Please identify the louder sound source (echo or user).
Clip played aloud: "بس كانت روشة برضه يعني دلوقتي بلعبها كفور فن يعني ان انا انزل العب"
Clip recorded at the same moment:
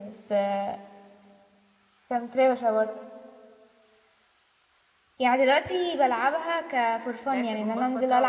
echo